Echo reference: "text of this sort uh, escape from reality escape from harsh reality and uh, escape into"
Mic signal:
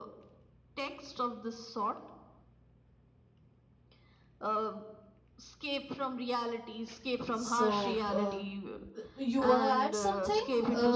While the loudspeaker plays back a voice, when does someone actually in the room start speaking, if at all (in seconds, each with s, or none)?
7.3 s